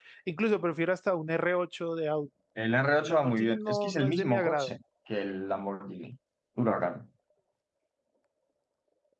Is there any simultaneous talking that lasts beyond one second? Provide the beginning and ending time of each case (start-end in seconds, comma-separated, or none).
3.0-4.7